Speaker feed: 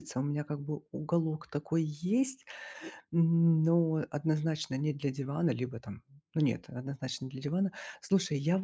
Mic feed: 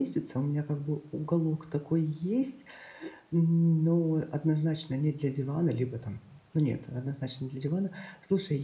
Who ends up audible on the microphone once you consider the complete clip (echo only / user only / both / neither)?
echo only